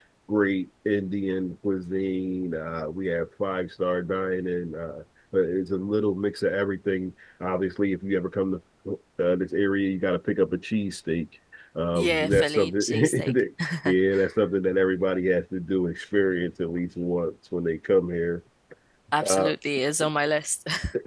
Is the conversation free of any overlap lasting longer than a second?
No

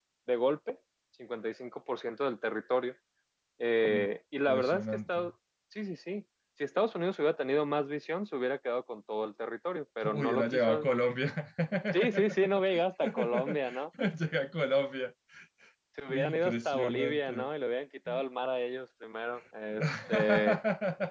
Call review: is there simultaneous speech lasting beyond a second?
Yes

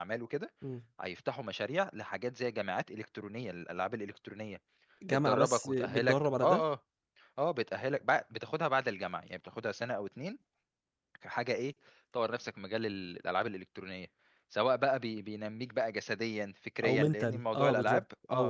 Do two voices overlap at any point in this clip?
Yes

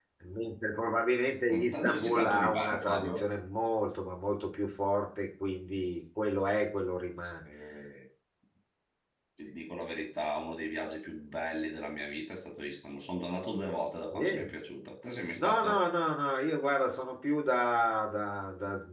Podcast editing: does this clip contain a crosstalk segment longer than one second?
Yes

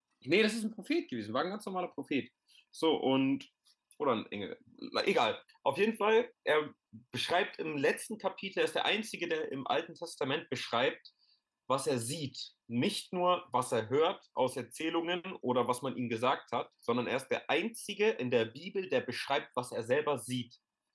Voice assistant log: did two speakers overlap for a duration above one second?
No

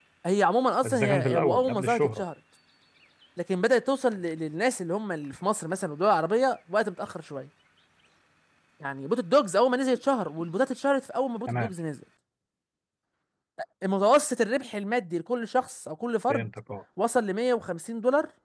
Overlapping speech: Yes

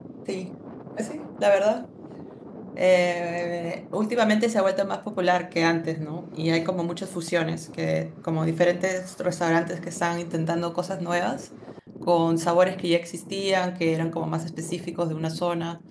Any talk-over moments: No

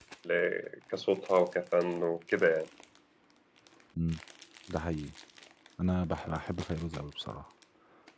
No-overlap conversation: Yes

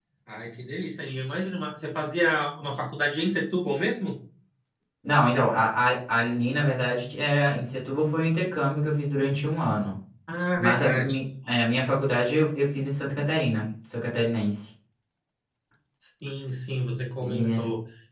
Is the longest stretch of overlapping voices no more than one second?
Yes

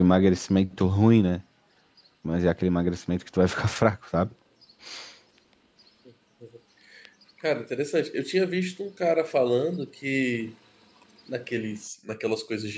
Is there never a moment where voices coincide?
Yes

